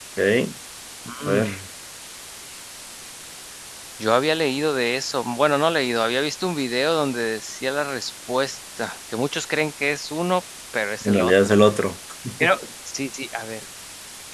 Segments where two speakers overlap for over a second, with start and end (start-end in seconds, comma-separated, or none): none